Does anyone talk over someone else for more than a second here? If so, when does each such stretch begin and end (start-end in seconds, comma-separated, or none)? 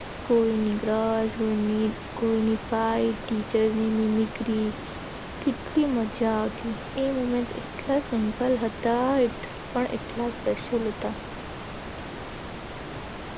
none